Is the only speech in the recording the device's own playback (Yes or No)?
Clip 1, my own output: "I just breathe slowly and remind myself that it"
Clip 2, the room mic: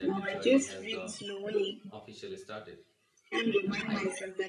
No